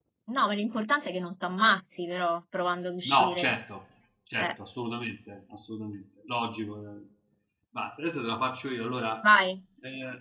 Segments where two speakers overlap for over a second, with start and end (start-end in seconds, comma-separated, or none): none